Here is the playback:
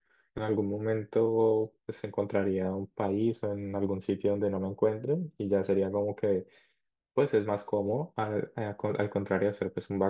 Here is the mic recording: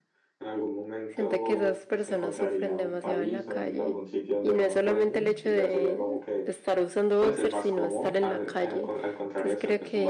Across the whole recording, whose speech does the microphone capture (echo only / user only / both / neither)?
both